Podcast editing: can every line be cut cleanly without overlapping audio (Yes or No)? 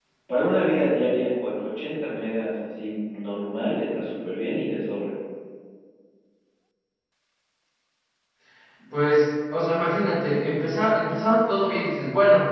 Yes